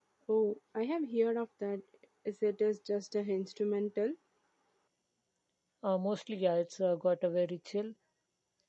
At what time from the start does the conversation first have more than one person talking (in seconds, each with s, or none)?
none